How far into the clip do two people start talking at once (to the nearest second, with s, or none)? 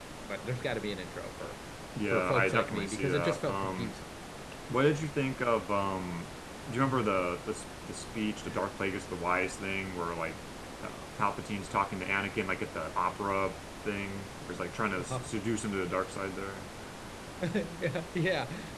2 s